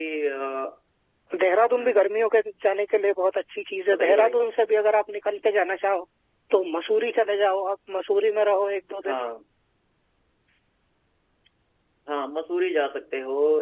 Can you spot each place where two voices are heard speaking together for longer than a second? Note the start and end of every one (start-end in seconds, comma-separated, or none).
none